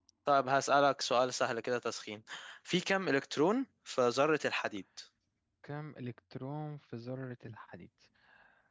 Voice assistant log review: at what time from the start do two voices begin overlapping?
none

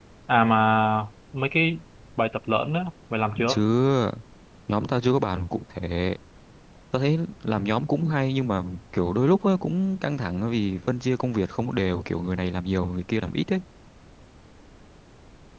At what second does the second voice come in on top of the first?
none

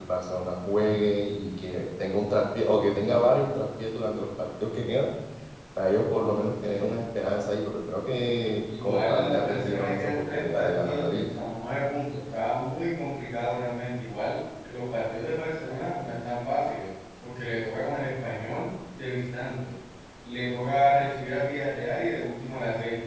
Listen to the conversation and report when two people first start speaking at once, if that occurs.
9 s

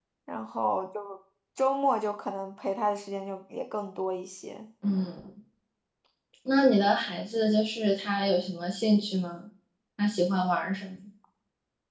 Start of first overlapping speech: none

